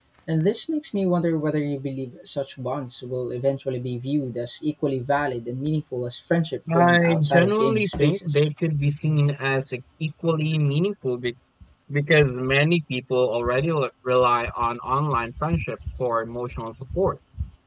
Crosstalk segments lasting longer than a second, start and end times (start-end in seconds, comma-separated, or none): 6.7-8.4